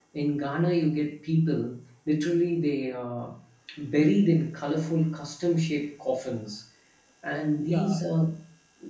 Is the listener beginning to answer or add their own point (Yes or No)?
No